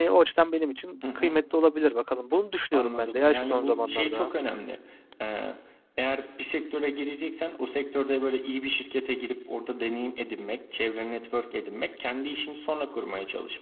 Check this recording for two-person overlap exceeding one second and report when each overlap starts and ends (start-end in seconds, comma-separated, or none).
2.7-4.3